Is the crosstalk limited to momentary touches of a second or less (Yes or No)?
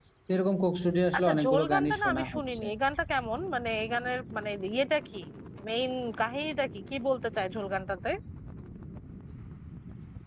No